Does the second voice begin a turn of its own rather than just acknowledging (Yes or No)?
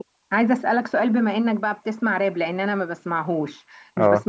No